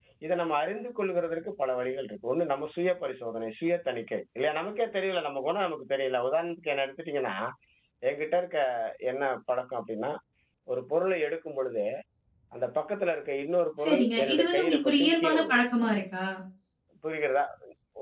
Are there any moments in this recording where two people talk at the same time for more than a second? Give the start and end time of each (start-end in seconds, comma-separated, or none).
13.8-15.6